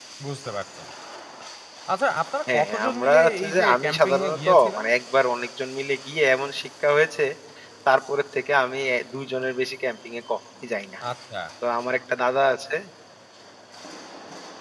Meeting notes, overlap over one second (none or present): present